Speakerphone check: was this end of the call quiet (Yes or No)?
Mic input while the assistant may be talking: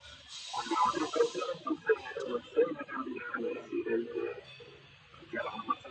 Yes